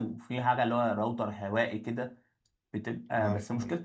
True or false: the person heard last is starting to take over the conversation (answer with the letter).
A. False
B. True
A